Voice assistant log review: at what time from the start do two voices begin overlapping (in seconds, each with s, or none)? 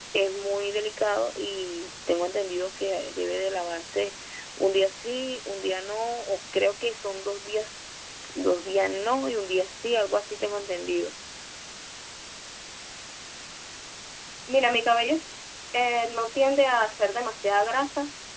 none